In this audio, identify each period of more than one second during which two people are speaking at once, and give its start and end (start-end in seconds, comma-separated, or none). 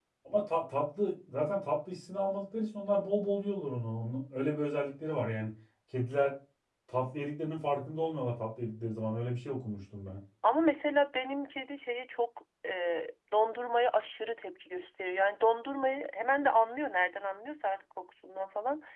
none